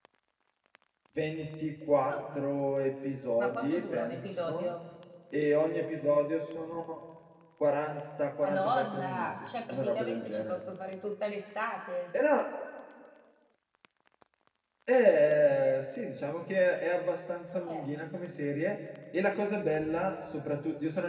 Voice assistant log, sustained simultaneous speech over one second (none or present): present